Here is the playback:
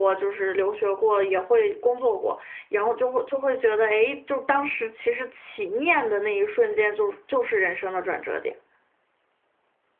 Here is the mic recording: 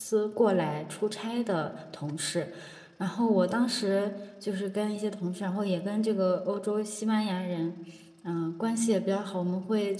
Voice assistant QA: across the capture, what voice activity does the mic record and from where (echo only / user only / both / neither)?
user only